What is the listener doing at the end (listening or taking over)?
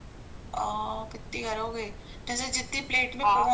listening